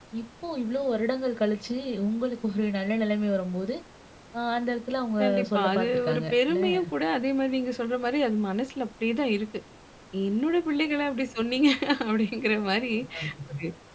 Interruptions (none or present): present